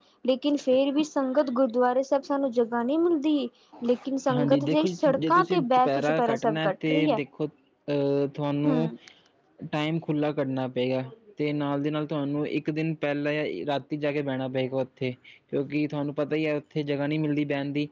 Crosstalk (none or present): present